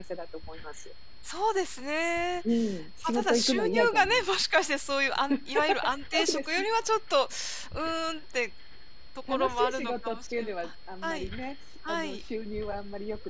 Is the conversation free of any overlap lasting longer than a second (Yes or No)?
No